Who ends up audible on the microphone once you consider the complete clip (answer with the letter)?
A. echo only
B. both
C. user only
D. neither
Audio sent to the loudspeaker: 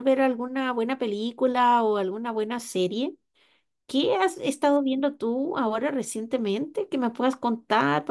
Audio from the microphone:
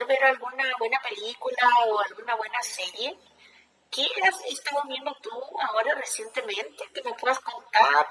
A